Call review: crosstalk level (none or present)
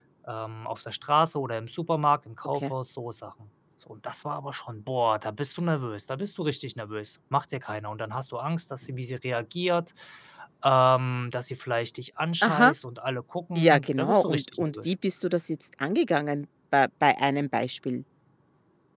present